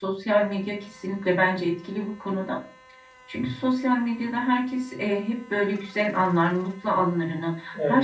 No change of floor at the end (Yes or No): Yes